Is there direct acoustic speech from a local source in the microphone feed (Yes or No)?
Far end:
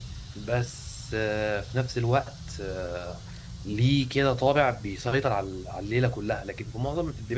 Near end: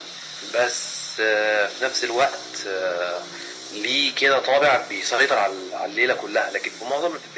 No